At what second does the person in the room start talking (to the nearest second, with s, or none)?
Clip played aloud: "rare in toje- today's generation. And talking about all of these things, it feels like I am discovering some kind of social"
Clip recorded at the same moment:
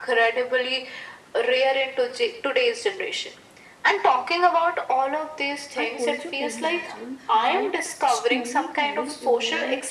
6 s